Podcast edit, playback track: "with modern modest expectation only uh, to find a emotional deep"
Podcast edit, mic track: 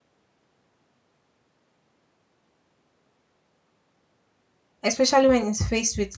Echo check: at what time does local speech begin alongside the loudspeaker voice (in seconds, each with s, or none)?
4.8 s